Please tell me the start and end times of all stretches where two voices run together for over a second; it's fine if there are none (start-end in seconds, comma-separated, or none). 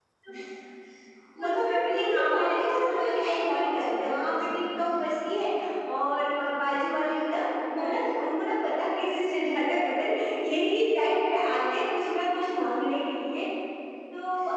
1.4-5.0